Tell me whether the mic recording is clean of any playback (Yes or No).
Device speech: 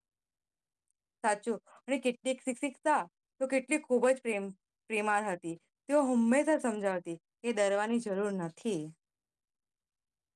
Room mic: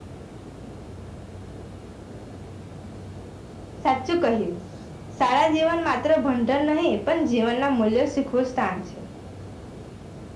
Yes